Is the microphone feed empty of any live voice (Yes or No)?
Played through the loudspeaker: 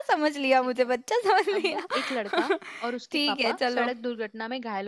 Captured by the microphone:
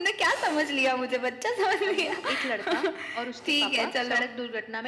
Yes